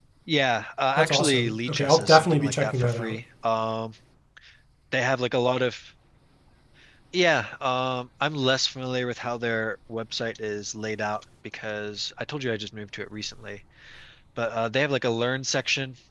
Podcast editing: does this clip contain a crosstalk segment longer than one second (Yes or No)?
Yes